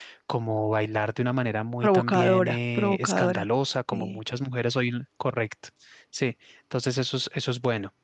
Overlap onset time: 1.8 s

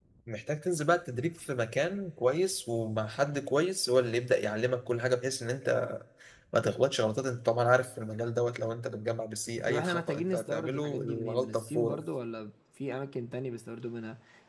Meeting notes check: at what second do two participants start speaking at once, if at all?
9.7 s

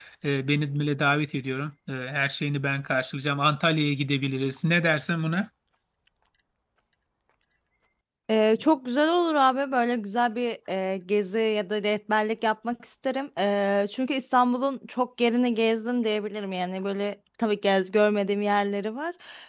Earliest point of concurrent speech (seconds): none

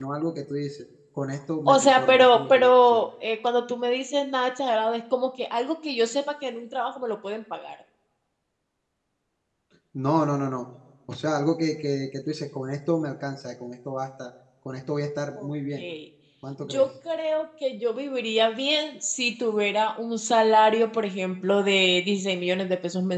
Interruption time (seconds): 1.7 s

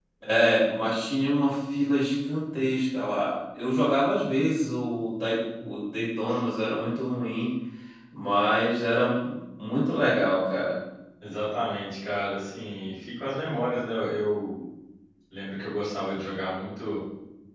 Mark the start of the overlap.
none

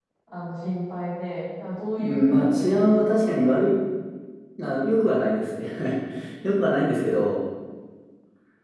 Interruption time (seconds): 2.0 s

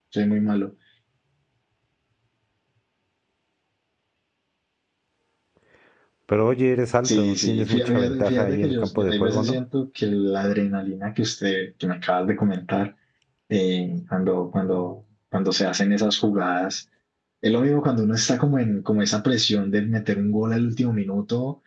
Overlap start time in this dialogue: 7.0 s

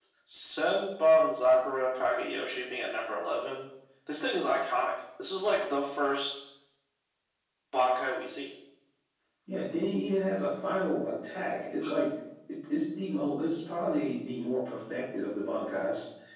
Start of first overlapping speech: none

